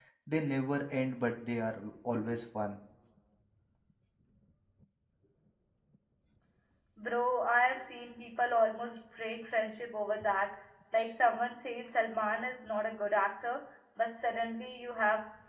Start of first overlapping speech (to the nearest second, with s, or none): none